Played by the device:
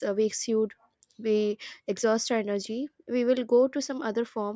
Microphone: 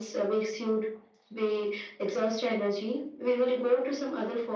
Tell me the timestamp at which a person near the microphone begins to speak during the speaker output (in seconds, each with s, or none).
none